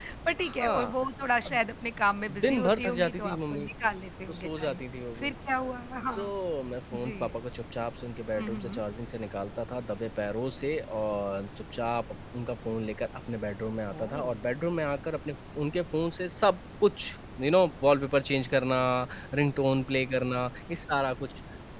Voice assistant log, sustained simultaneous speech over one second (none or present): present